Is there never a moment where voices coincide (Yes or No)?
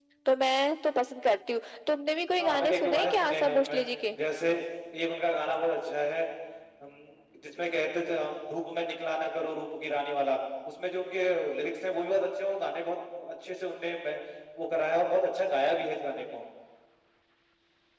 No